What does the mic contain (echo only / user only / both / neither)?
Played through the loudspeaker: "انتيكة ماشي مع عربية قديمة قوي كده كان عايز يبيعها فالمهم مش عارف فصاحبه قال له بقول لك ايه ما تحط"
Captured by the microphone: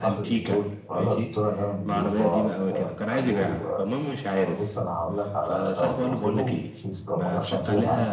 both